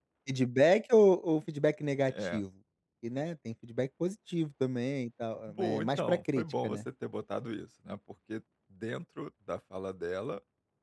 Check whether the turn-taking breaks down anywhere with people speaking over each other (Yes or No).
Yes